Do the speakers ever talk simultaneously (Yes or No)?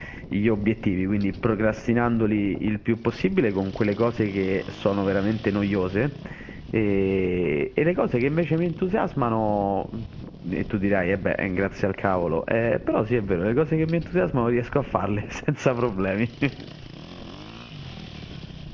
No